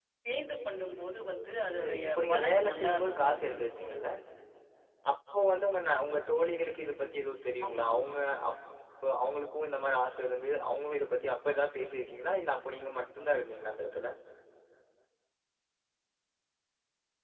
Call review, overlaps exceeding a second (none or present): present